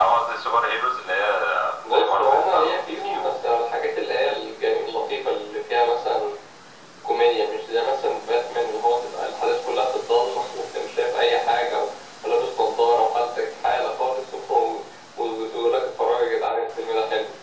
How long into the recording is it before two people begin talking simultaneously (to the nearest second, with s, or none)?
2 s